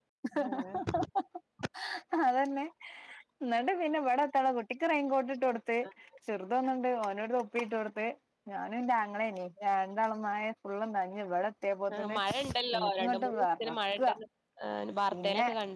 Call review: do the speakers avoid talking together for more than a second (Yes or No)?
No